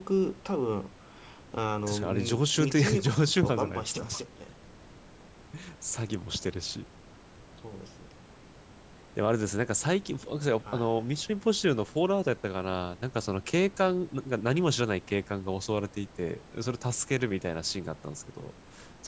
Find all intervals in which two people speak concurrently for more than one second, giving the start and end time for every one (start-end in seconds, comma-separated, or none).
1.9-4.0